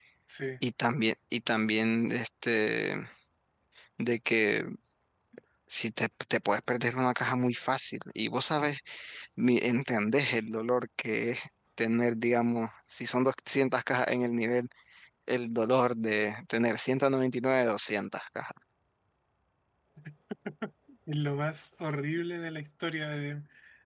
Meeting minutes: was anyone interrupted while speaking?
No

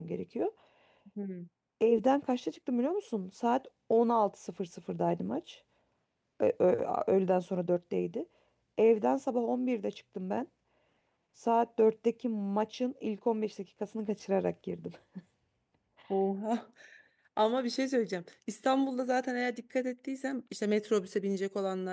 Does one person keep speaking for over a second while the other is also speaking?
No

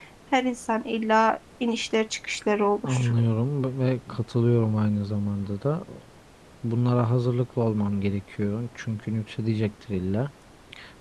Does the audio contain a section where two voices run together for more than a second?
No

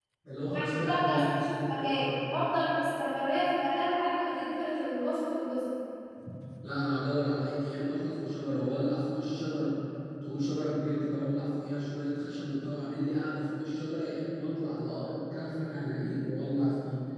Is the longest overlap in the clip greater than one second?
Yes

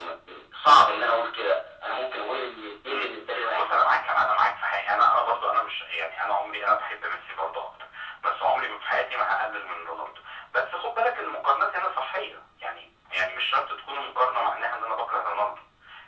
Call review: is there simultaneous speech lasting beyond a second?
No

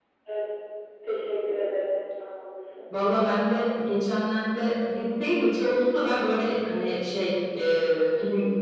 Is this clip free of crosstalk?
Yes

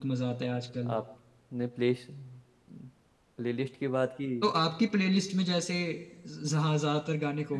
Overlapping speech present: No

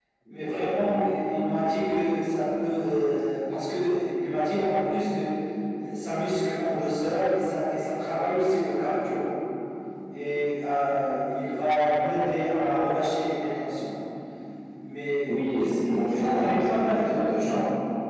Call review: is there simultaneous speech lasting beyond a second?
Yes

